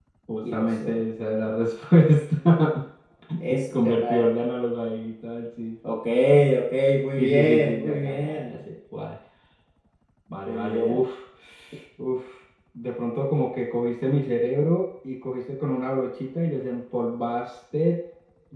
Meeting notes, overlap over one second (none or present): present